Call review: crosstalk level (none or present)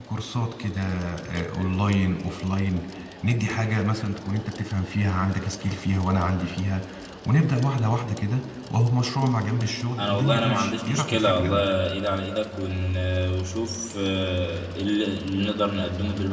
present